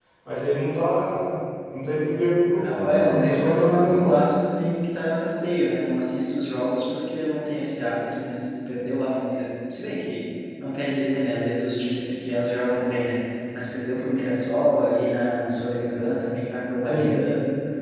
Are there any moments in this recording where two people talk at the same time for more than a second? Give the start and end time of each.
2.6-4.1

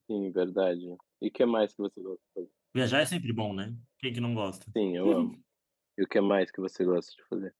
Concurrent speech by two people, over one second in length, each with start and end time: none

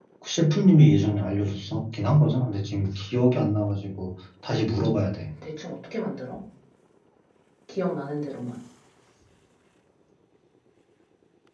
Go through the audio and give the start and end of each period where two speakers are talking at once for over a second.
none

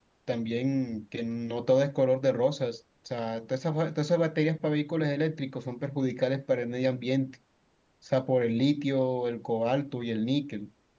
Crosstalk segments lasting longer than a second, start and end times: none

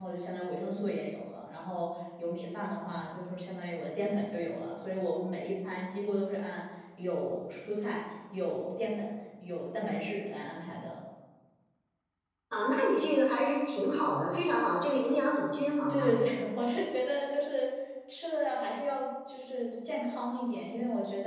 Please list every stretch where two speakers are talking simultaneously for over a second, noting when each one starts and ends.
none

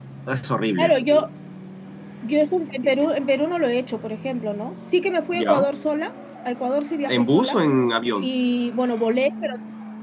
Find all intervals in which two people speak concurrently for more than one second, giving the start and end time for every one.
none

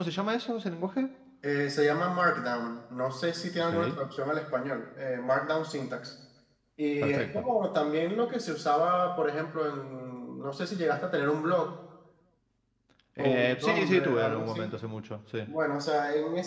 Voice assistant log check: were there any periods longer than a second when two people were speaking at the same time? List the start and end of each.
13.2-14.7

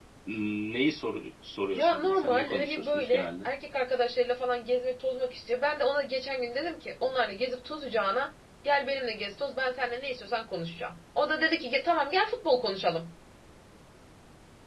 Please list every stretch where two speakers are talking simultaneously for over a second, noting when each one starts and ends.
1.7-3.5

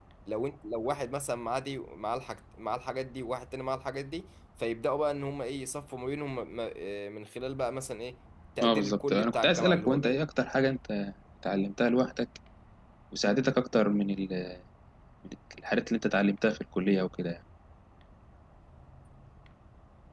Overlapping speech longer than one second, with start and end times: 8.6-10.2

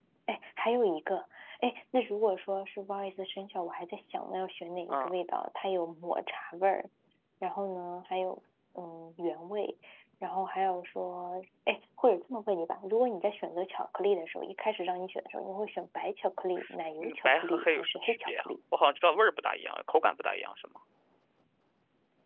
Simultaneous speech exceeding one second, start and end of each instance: 17.0-18.5

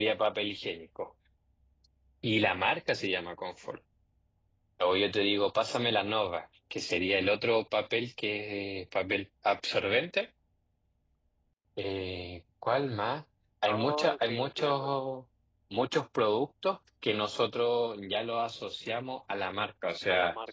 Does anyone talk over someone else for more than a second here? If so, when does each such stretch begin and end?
13.7-14.9

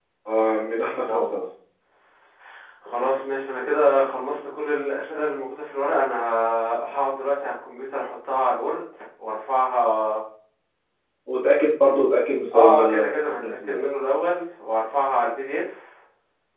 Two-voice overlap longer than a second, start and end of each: 12.5-13.9

